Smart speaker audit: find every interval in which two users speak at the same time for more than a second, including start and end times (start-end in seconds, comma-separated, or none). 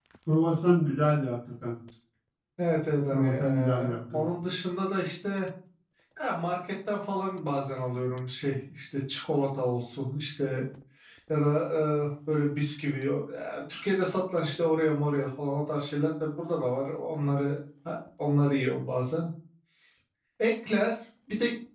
3.1-4.3